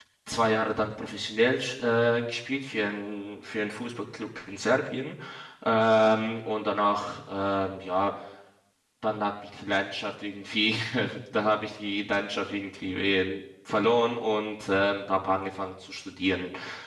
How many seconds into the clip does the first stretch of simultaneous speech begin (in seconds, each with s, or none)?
none